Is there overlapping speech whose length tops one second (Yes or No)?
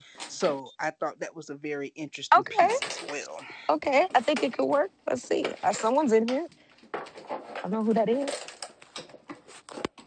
No